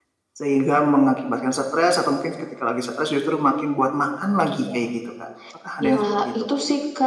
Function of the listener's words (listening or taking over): taking over